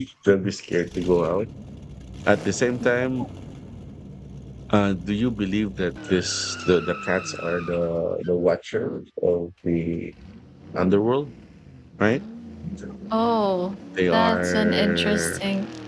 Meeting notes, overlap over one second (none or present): present